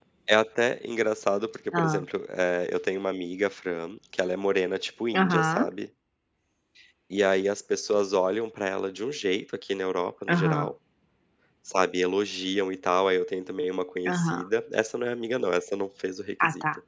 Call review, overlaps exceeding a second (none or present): none